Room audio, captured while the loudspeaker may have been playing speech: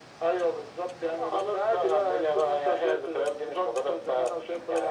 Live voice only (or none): none